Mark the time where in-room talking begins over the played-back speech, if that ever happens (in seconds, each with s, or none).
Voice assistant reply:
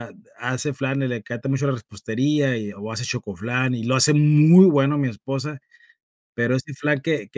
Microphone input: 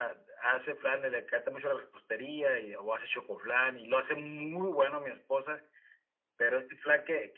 none